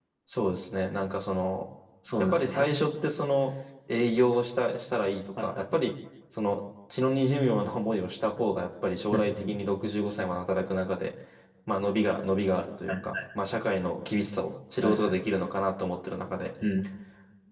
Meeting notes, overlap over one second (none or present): none